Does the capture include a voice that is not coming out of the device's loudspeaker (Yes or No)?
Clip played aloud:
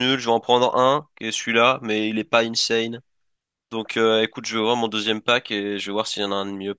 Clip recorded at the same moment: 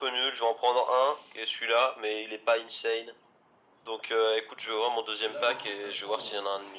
Yes